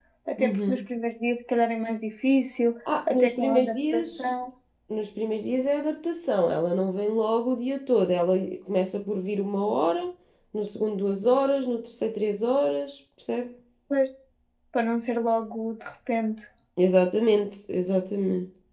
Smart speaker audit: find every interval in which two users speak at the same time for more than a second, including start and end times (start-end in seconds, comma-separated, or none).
3.1-4.3